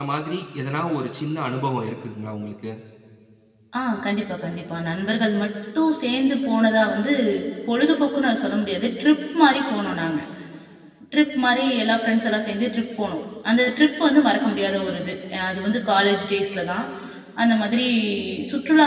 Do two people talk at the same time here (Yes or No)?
No